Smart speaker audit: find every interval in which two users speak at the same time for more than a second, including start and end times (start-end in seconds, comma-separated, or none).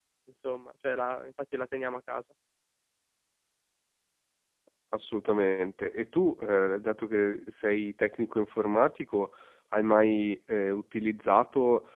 none